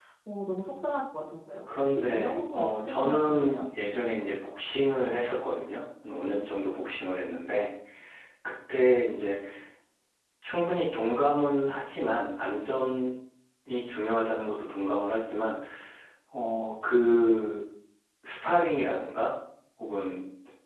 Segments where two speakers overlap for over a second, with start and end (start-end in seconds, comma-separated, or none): 1.8-3.6